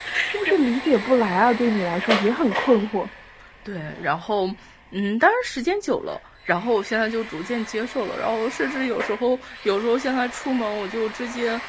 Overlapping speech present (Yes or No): No